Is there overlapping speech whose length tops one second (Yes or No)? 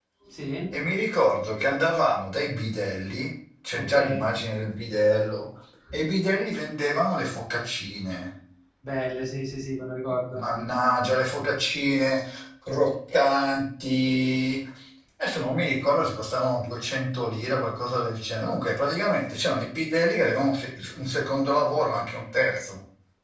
No